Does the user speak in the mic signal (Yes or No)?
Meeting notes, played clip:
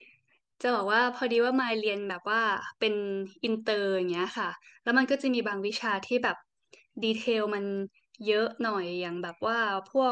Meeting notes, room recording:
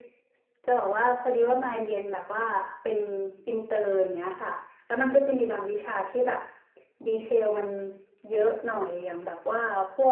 No